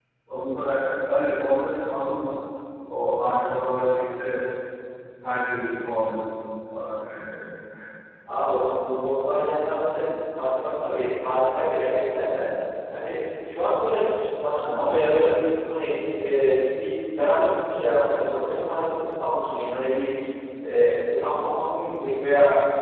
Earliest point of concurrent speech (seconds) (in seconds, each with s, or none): none